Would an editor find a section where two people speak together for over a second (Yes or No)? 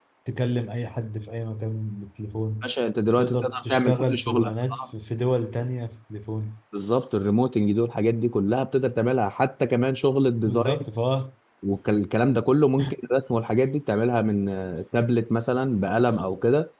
Yes